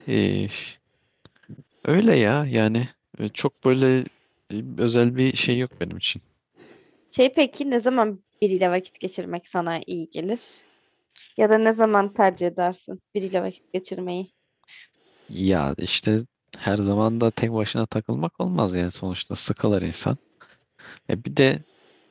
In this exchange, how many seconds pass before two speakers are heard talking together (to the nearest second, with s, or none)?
none